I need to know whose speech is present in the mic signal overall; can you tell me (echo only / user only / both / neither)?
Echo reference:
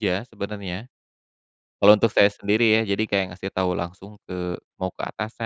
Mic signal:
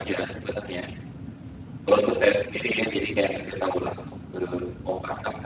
echo only